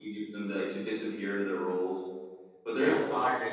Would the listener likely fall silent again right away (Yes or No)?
No